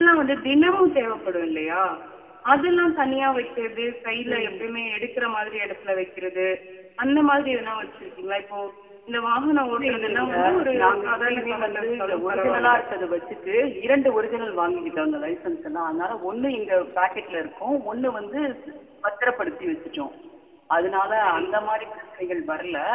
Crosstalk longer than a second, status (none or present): present